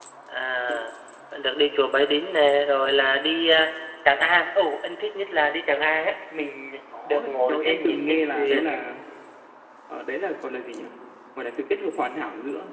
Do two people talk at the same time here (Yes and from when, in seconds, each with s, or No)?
Yes, from 6.9 s